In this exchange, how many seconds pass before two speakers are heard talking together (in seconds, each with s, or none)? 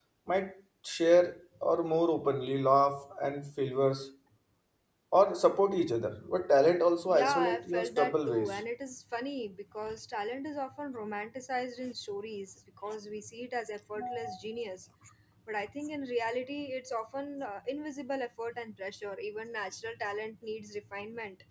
7.1 s